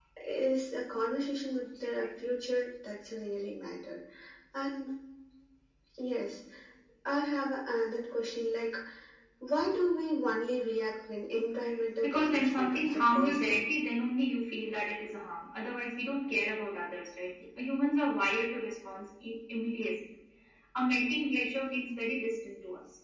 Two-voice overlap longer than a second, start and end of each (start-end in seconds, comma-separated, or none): 12.0-13.6